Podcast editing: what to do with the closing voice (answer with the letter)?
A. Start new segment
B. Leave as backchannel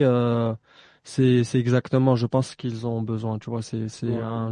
B